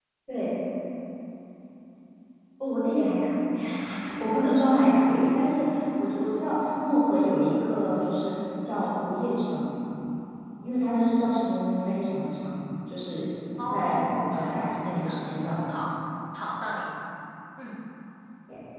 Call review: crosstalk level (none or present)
present